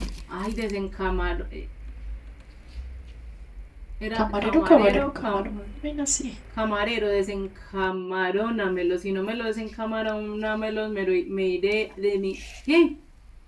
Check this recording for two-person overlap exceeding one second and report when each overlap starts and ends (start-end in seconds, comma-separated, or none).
4.1-5.5